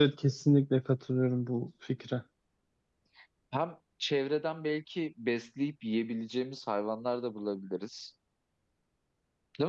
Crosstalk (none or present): none